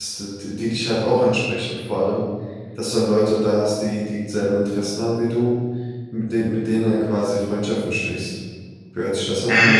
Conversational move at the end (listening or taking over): taking over